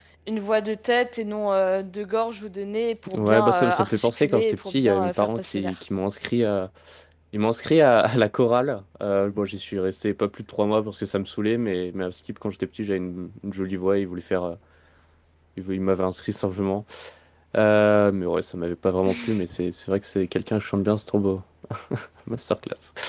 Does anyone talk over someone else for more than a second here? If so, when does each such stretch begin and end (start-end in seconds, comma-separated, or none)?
3.1-5.8